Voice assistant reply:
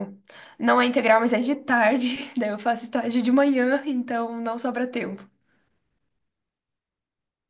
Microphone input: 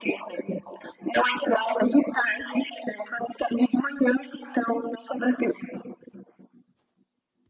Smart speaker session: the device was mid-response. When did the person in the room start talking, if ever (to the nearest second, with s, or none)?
none